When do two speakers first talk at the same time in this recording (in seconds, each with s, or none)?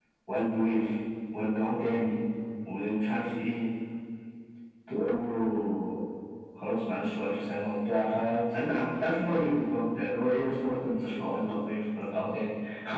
none